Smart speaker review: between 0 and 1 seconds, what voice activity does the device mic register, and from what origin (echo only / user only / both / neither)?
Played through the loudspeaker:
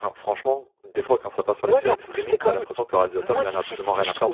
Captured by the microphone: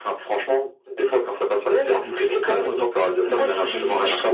echo only